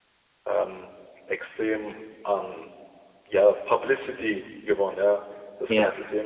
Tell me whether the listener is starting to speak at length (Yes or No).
No